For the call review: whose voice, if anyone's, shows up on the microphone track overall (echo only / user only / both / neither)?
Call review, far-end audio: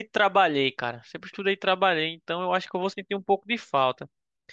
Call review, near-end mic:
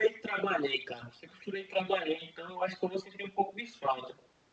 echo only